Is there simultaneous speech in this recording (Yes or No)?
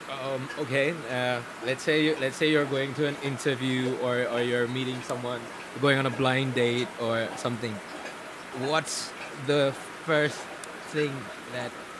No